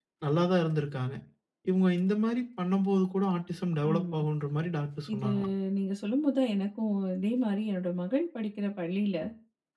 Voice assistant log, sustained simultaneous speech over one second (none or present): none